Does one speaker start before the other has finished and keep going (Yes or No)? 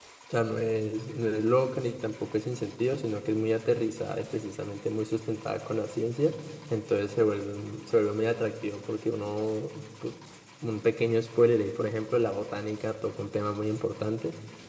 No